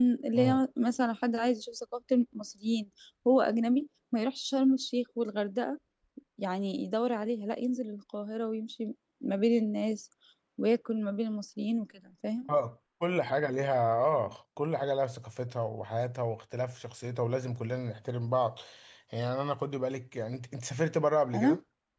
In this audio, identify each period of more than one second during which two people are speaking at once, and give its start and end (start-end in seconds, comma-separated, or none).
none